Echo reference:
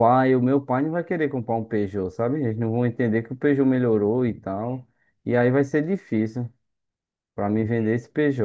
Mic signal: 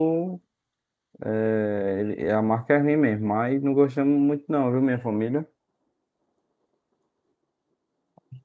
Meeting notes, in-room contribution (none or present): present